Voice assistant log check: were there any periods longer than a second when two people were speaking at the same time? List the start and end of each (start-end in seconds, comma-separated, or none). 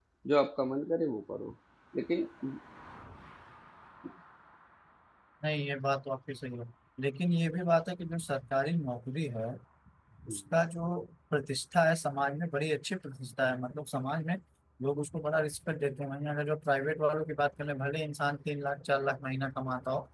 none